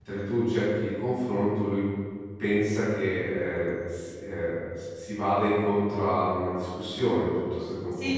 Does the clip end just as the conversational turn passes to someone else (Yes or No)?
Yes